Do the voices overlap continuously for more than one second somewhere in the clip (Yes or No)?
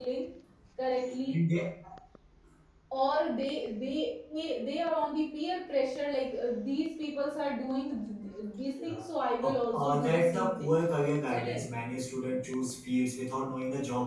Yes